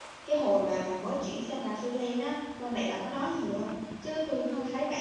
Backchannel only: Yes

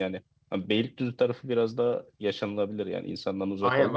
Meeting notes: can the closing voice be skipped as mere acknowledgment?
No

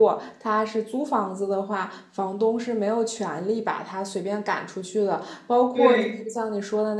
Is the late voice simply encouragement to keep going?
Yes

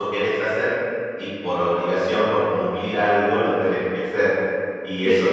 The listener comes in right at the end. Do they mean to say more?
No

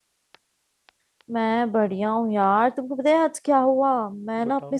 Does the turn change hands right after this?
No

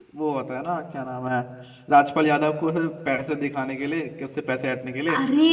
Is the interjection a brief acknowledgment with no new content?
Yes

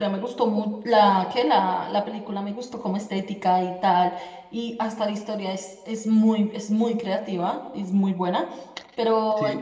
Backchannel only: Yes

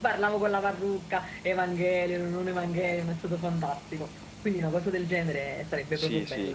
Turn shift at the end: Yes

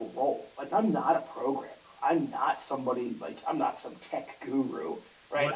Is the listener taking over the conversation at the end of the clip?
Yes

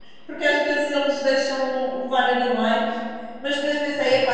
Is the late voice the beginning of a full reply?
No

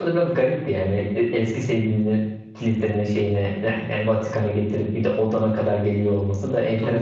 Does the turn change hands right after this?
Yes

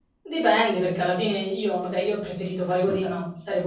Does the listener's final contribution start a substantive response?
No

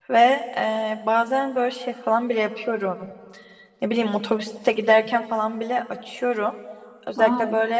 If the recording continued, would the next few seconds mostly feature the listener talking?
No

